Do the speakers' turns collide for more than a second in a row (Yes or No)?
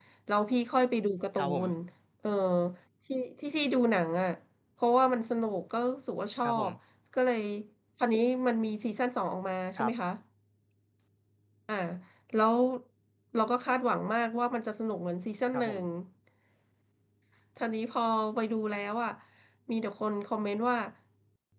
No